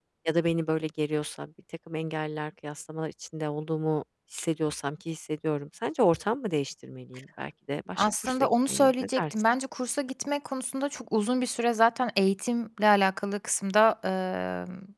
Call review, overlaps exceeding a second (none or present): present